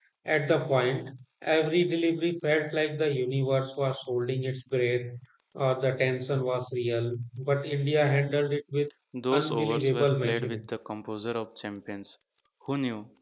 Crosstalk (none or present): present